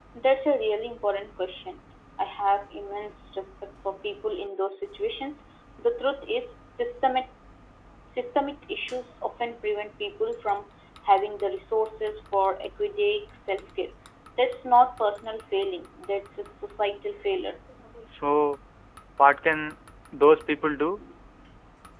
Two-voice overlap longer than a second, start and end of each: none

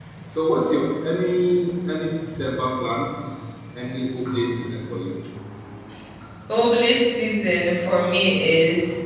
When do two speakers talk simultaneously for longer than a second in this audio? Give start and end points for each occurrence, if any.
none

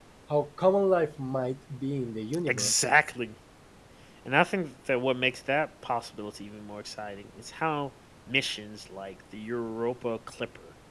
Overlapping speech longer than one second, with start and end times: none

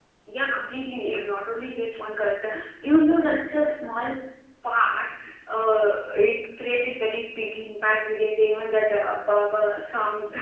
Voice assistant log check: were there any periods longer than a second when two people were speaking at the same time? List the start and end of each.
none

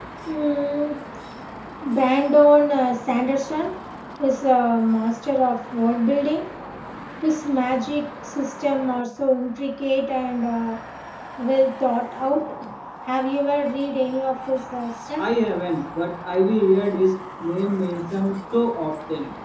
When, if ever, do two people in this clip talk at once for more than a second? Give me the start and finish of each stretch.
none

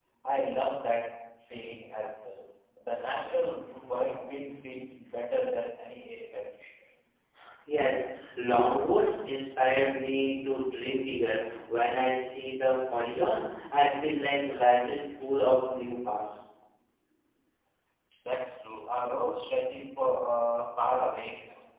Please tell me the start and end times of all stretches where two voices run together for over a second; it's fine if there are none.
none

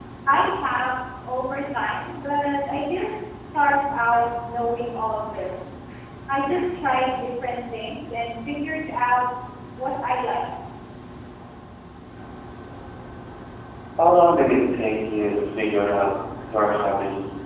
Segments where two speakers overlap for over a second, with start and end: none

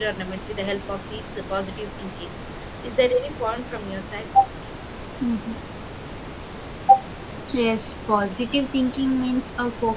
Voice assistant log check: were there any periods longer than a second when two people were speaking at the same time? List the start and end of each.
none

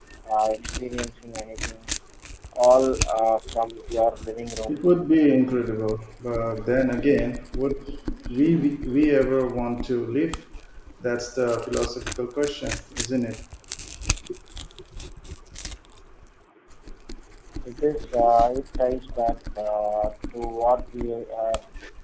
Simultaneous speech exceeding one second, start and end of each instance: none

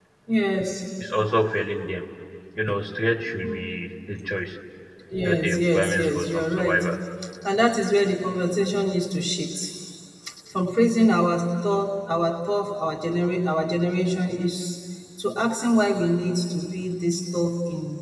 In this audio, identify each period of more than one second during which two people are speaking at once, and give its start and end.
5.2-6.8

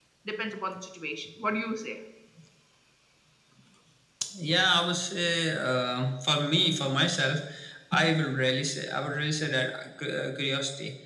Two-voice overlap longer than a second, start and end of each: none

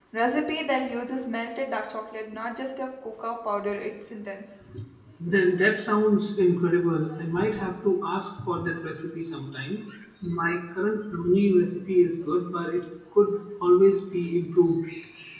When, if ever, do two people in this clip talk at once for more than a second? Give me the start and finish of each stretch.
none

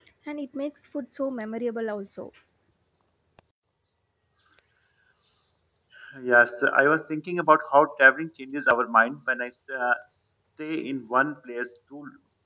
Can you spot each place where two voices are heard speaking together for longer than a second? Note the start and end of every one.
none

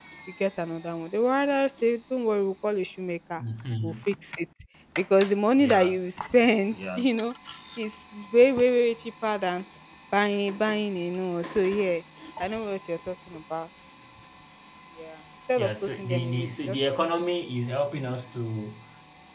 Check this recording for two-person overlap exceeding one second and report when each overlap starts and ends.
15.6-17.2

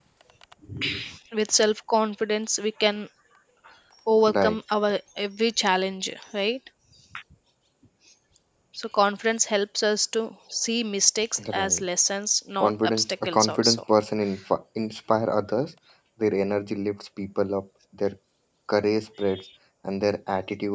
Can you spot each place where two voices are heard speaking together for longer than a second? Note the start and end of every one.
12.6-13.8

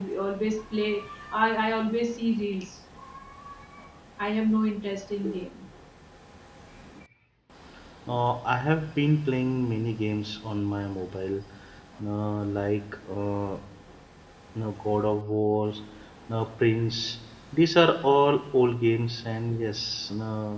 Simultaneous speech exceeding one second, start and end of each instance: none

